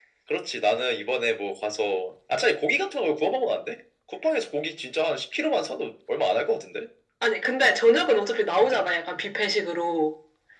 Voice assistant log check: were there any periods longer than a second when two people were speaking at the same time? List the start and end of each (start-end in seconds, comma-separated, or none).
none